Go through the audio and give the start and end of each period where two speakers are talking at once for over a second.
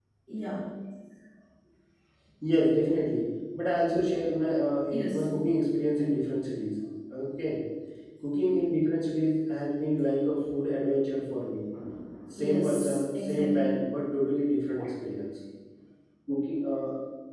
12.4-13.8

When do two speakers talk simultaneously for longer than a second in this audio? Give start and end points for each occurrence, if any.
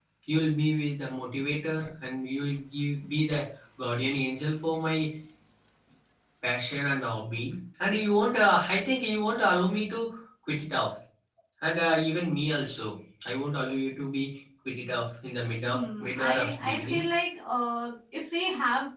15.7-17.0

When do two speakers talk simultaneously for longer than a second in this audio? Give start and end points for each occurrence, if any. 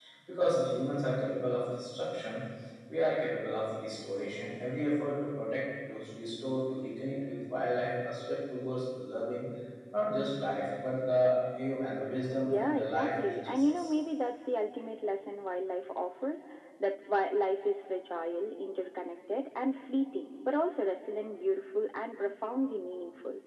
12.4-13.9

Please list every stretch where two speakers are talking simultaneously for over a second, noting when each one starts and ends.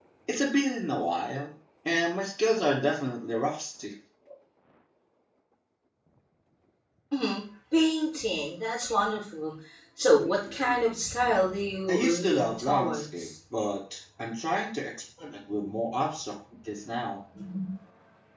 11.9-13.3

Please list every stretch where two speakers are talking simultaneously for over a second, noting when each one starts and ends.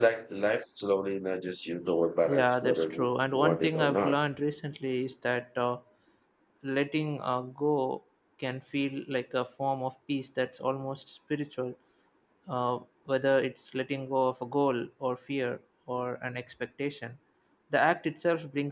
2.3-4.2

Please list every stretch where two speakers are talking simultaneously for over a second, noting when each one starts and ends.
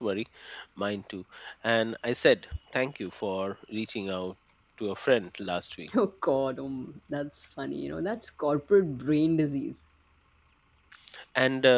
none

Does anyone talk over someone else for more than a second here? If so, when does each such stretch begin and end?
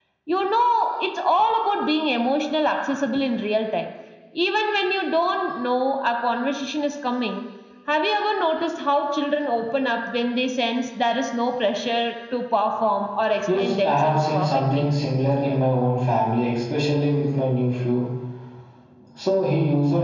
13.5-14.9

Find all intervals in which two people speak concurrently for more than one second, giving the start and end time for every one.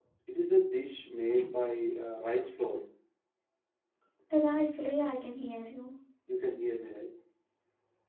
none

